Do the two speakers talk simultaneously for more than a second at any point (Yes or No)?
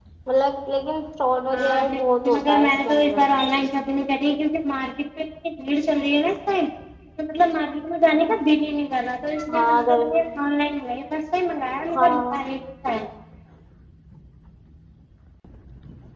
Yes